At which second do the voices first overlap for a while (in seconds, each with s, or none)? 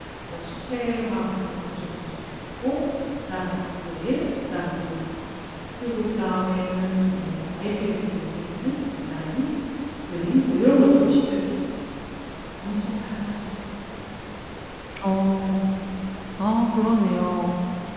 none